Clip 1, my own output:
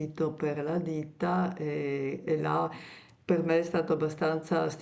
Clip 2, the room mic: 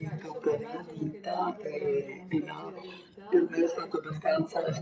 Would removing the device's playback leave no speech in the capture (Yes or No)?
No